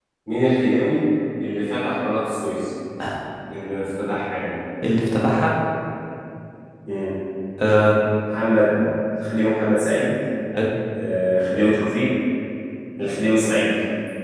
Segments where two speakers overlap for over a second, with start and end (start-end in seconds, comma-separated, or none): none